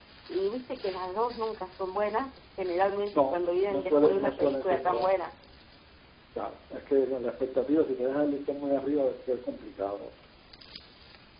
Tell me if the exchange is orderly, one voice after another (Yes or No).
No